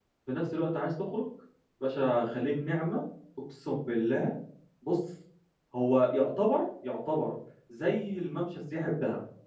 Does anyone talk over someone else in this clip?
No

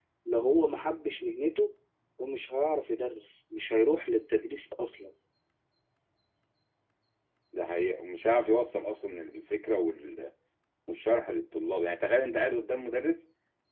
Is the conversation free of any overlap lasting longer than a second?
Yes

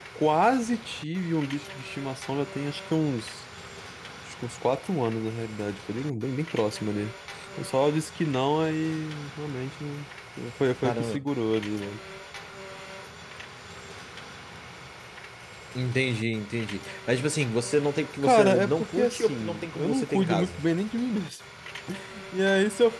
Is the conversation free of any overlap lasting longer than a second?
No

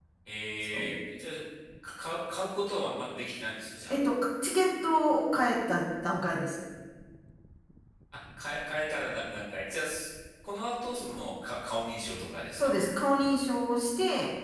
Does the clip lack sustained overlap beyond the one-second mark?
Yes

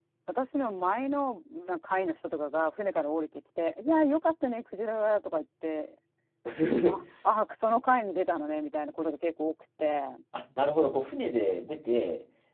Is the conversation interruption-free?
Yes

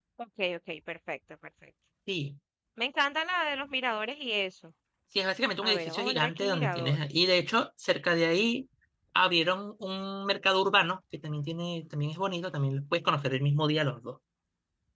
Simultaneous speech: Yes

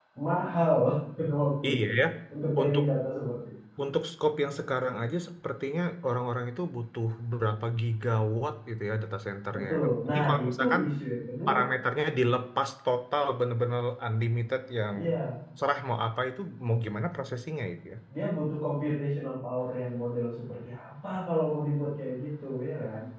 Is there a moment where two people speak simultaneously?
Yes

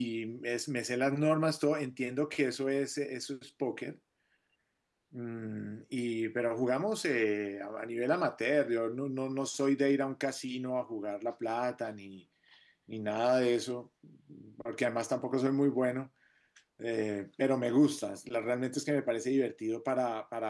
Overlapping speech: No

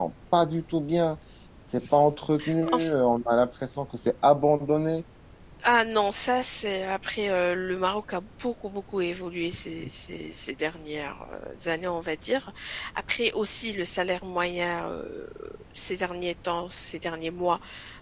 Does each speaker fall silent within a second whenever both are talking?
Yes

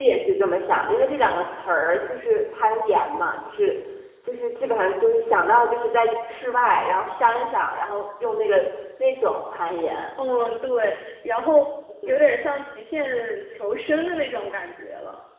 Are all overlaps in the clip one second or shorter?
Yes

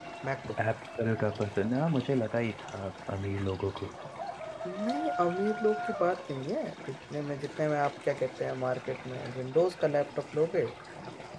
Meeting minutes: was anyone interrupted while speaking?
No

